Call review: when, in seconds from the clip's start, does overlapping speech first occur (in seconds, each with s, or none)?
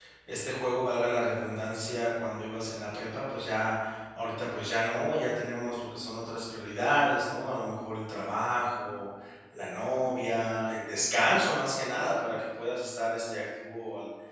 none